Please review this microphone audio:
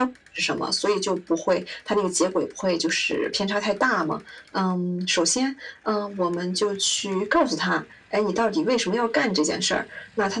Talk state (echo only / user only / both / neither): echo only